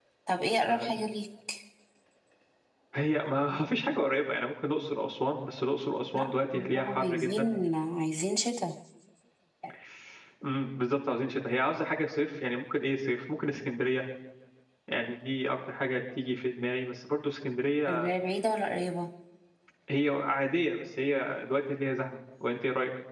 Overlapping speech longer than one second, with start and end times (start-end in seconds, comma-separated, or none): 6.1-7.5